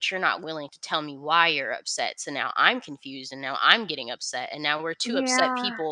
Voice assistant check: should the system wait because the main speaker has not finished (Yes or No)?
Yes